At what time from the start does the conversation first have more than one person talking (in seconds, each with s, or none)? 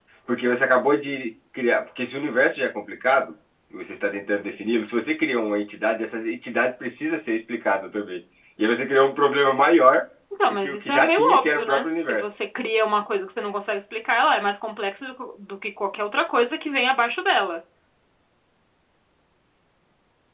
10.5 s